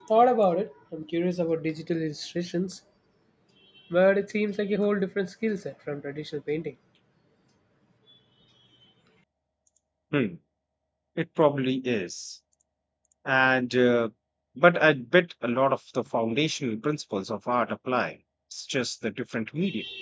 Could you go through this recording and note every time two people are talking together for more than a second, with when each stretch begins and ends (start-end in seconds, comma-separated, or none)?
none